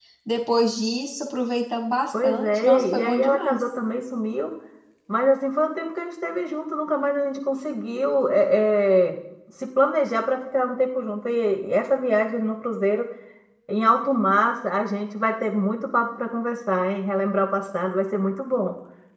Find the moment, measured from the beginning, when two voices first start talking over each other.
2.1 s

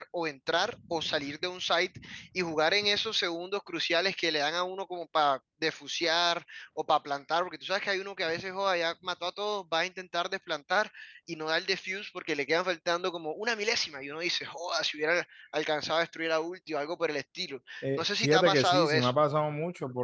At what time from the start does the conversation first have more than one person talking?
17.8 s

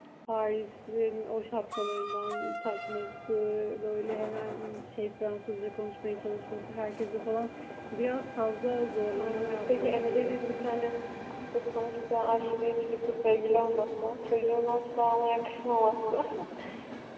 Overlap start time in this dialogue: 9.2 s

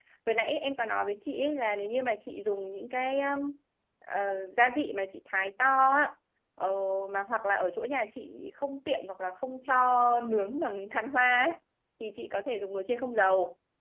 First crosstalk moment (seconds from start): none

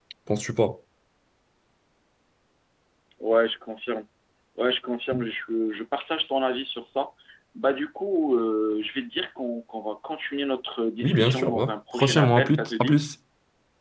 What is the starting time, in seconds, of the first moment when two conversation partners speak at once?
11.0 s

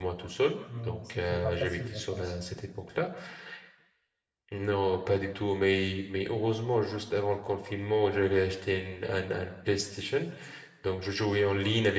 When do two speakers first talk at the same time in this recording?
0.8 s

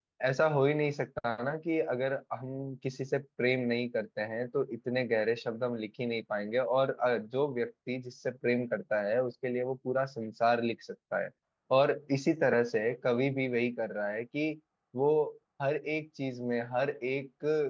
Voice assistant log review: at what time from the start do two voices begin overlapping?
none

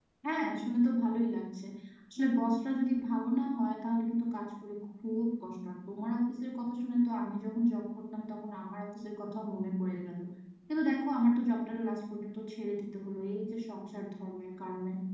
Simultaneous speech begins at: none

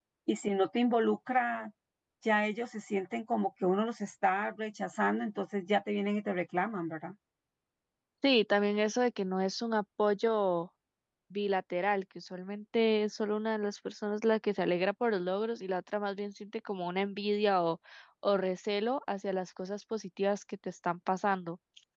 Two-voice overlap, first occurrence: none

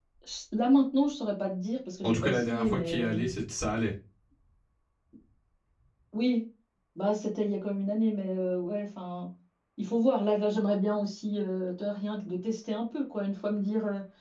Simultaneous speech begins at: 2.0 s

